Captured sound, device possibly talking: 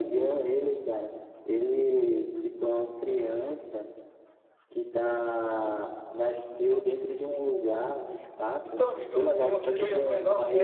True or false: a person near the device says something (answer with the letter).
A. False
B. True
B